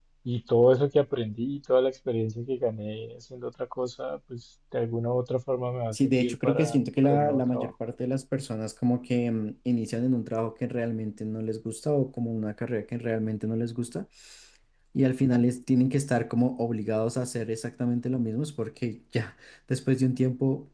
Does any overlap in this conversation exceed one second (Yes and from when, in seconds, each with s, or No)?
Yes, from 5.9 s